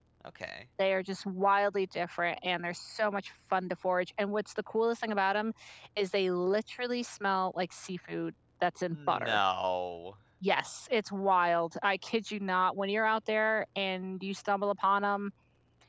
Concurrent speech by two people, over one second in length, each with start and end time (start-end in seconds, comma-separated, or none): none